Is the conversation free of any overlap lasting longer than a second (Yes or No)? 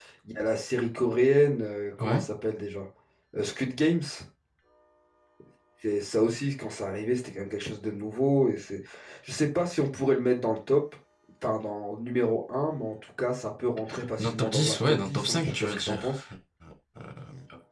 No